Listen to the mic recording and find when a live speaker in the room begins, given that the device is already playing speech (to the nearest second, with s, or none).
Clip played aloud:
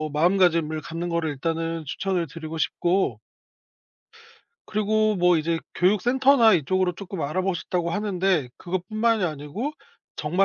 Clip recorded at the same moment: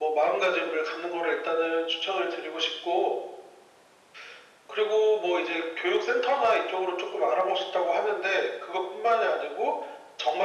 none